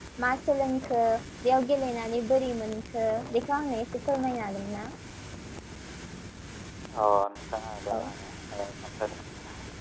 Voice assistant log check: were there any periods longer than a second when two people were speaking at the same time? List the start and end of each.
none

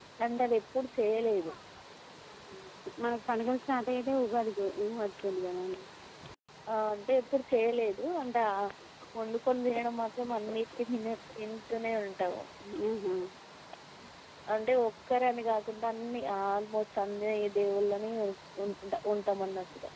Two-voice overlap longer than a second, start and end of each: none

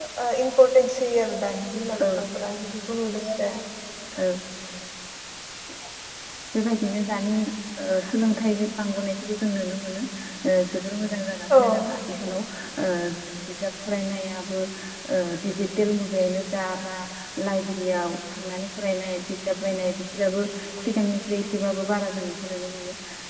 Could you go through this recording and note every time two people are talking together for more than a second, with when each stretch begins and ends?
none

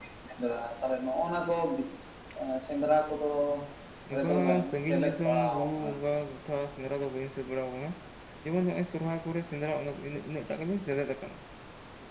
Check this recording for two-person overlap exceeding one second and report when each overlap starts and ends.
4.2-6.2

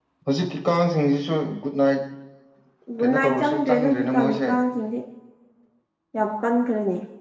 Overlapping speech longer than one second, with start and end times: 3.0-4.4

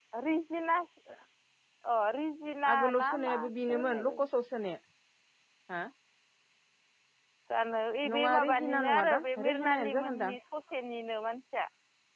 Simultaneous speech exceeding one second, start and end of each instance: 2.7-4.3, 8.1-10.4

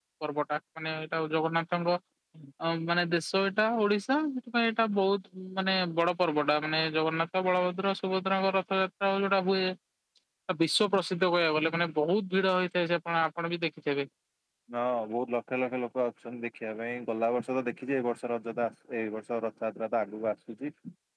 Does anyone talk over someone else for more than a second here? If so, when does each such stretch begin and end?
none

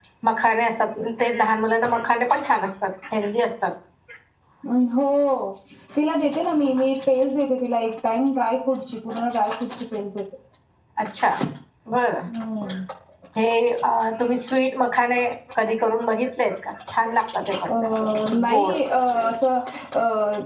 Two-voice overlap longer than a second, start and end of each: none

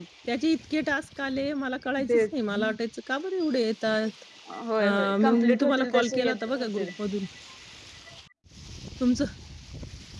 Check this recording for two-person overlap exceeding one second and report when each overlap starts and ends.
4.8-6.9

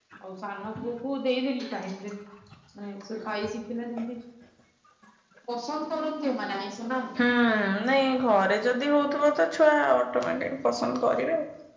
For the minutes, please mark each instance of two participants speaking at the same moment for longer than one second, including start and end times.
none

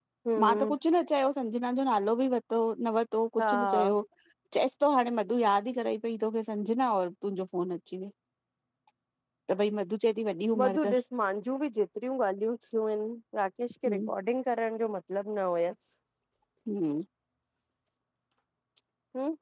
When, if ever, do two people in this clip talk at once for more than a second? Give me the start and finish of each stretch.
none

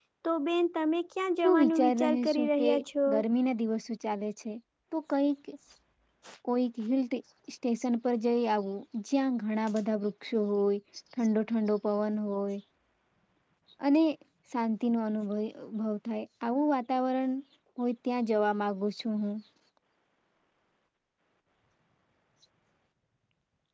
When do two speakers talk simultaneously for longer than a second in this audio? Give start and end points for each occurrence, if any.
1.4-2.7

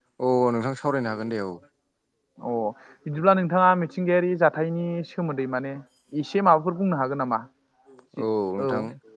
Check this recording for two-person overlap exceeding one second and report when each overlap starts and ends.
none

